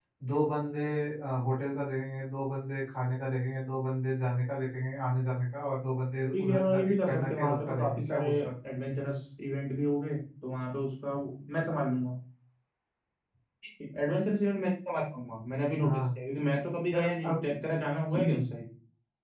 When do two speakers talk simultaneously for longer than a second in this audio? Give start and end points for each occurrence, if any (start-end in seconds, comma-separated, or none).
6.3-8.3